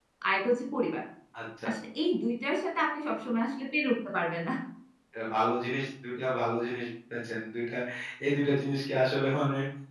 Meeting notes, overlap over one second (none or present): none